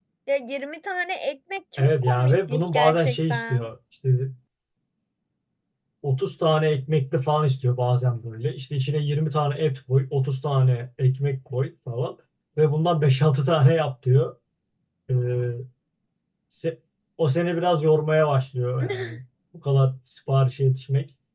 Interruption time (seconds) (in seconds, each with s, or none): 1.8 s